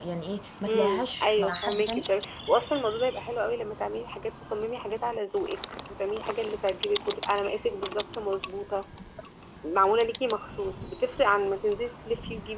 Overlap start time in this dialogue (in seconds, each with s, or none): 0.7 s